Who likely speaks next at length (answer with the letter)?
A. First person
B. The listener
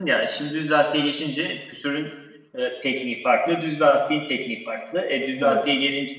A